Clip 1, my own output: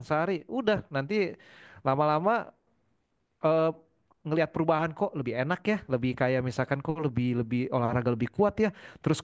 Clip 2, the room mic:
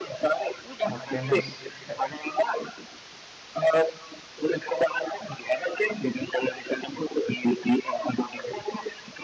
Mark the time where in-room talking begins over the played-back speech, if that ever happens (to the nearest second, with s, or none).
1 s